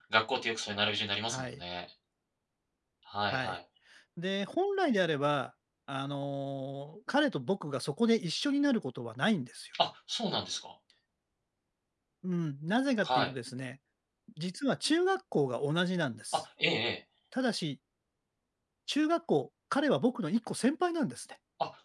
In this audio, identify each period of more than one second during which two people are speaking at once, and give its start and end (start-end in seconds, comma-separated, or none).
none